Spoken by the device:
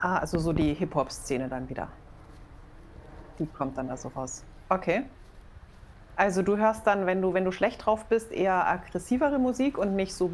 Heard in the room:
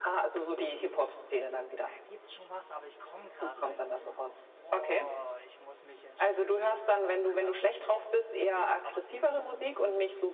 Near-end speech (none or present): present